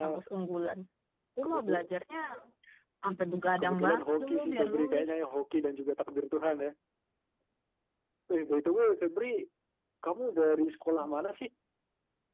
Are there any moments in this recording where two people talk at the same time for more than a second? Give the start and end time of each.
3.6-5.1

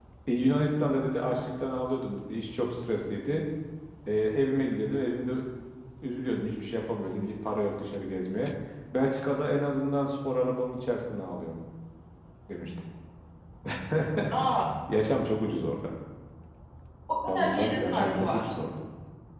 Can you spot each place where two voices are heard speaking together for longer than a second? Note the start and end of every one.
17.3-18.5

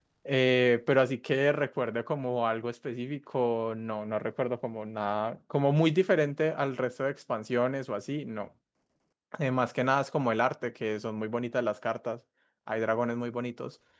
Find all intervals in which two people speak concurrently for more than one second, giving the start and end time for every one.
none

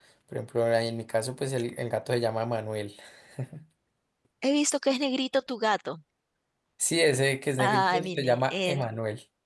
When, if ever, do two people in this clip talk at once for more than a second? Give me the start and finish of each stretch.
7.6-8.8

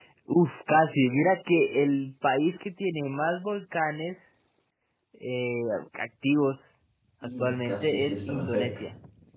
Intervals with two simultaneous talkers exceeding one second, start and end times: 7.4-8.7

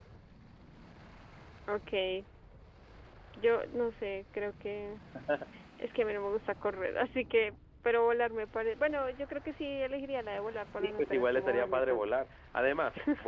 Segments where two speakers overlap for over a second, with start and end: 10.8-12.1

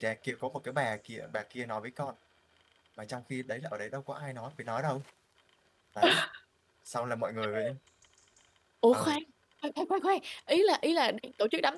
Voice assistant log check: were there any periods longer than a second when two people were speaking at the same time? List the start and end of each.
none

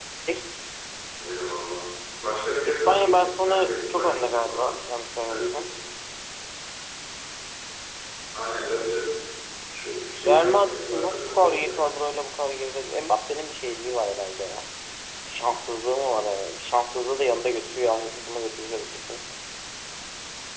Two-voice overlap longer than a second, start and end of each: 2.6-4.8, 10.2-11.9

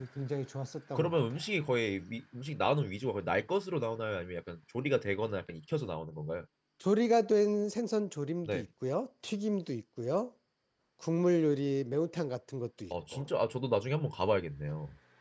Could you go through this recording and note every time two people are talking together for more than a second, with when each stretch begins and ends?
none

